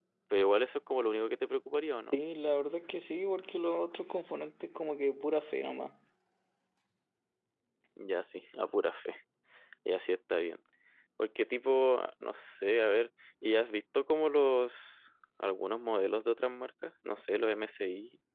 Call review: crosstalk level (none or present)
none